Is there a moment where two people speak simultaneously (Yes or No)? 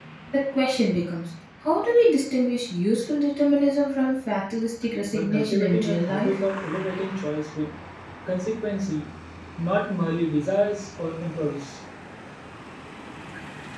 Yes